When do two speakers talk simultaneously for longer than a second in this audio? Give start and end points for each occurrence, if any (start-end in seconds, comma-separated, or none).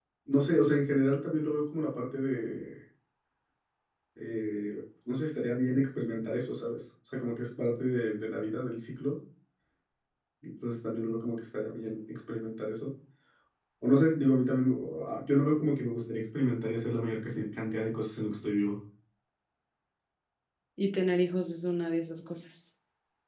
none